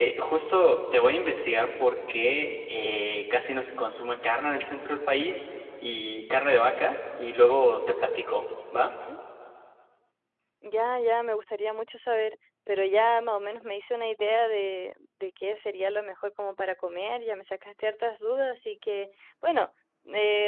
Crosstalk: none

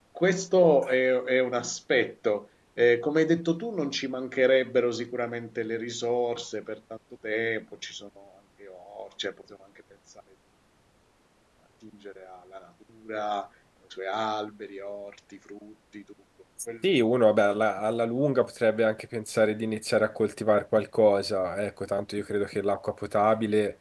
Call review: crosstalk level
none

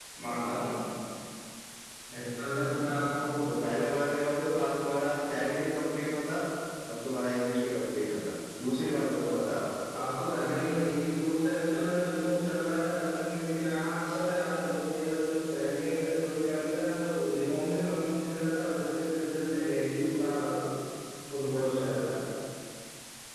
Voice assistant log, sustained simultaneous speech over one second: none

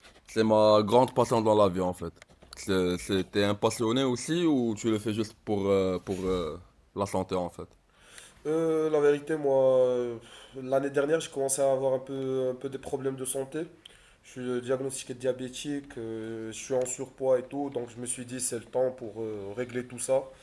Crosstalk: none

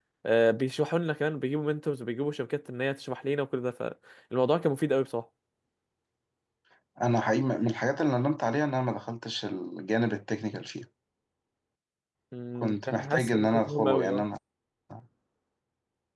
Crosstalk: present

